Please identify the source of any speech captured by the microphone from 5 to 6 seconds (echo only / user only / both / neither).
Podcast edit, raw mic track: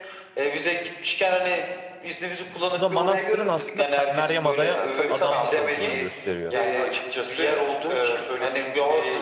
both